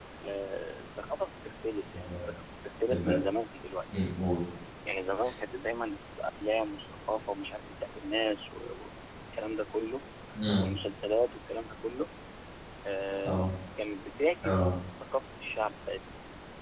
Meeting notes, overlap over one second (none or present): none